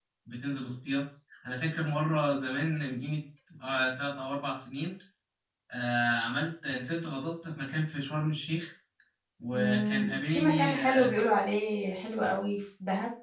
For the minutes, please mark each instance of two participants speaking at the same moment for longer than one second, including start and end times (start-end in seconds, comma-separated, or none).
9.5-11.1